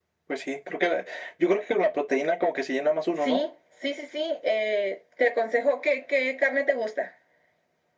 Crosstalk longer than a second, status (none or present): none